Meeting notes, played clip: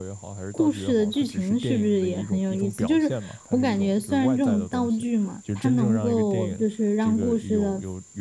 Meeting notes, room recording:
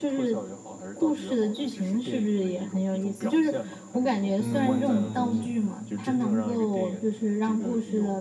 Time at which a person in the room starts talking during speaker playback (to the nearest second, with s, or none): 4 s